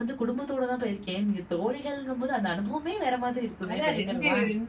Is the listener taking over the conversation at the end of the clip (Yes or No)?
Yes